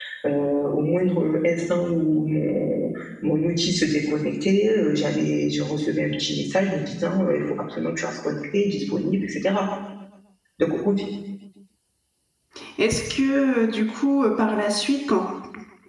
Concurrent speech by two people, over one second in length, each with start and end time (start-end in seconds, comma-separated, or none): none